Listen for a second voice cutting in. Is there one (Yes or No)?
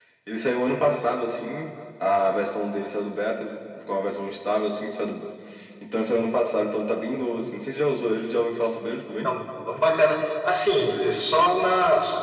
No